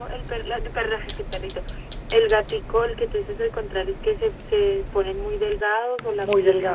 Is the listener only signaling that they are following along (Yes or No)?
No